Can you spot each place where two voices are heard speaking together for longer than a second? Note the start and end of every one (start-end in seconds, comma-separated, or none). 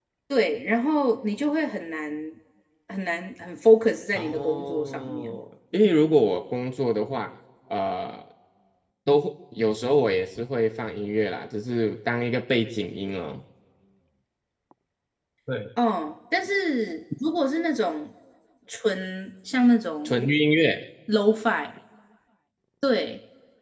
4.1-5.4